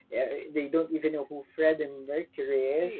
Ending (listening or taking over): listening